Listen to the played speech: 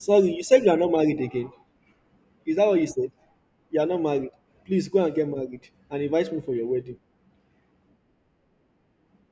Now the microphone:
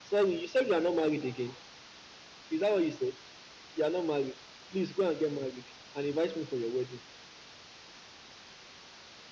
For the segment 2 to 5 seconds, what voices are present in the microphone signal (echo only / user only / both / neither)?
echo only